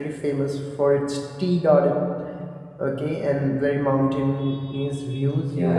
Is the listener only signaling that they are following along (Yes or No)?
No